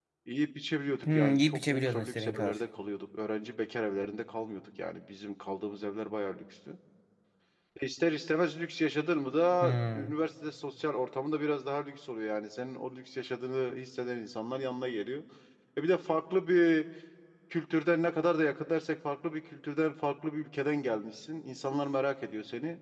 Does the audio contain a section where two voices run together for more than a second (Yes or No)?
Yes